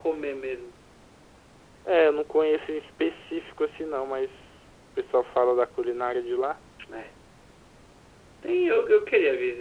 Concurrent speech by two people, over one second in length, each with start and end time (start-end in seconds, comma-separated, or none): none